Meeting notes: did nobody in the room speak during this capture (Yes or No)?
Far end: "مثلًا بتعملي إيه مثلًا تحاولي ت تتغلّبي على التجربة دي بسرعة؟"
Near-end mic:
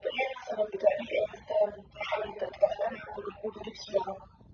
Yes